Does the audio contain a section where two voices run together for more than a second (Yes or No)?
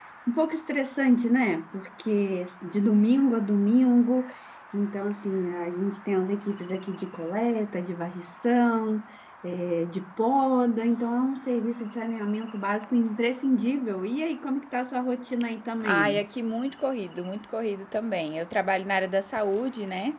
No